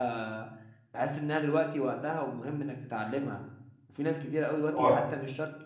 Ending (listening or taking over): listening